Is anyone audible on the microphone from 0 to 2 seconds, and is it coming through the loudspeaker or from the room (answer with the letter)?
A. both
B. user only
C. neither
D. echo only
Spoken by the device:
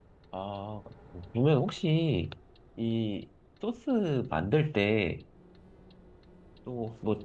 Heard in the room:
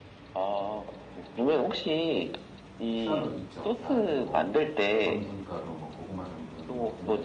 D